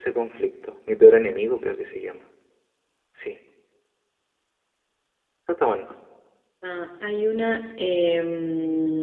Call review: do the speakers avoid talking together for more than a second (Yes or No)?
Yes